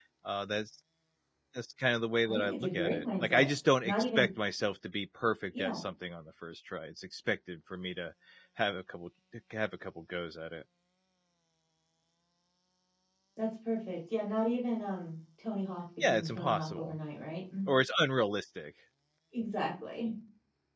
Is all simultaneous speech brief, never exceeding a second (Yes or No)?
No